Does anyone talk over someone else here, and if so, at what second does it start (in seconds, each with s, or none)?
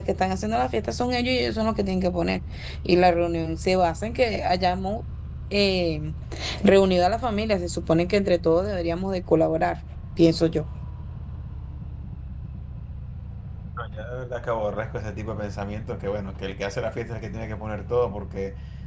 none